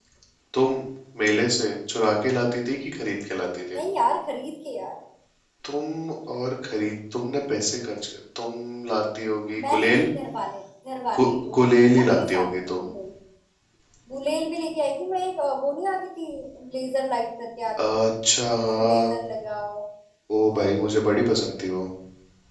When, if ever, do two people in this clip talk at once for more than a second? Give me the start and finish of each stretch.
11.2-12.8

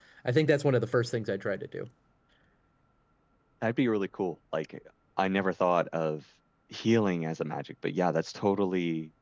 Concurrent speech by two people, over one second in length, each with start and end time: none

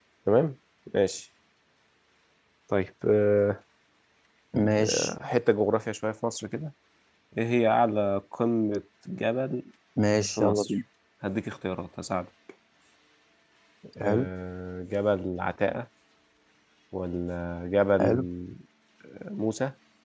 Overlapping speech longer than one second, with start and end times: none

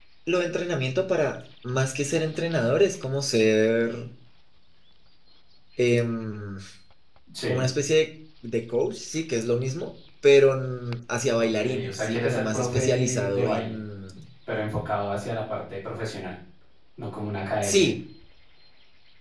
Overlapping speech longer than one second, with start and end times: 11.4-13.8

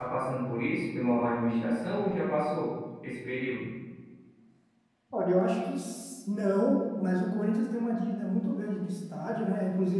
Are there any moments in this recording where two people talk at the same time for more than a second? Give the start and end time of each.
none

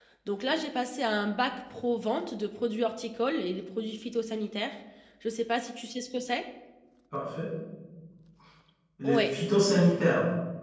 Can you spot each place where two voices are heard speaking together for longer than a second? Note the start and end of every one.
none

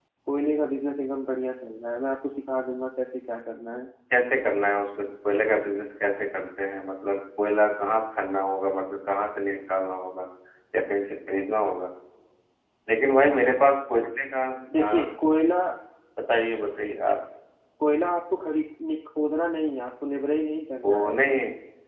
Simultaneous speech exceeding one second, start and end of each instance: none

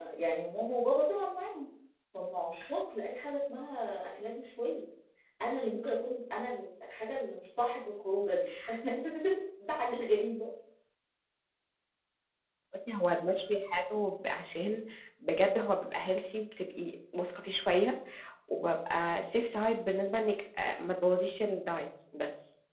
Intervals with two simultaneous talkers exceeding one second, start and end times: none

